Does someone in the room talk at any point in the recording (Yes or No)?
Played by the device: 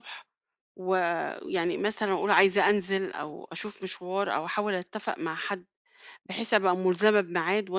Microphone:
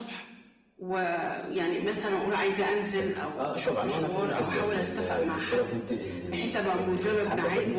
Yes